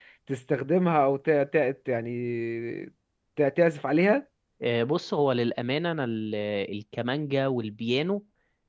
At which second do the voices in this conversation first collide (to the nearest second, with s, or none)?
none